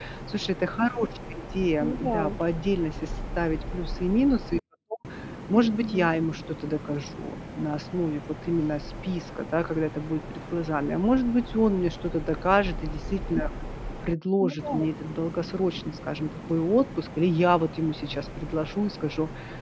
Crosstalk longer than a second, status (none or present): none